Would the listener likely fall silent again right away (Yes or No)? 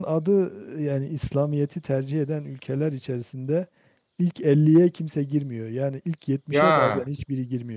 Yes